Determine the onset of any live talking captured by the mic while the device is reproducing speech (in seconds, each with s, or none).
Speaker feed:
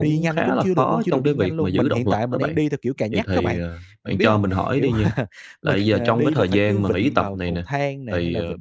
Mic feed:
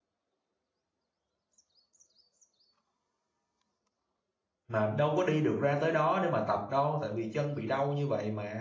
4.7 s